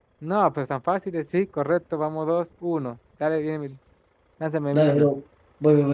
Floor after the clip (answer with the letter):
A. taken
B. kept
A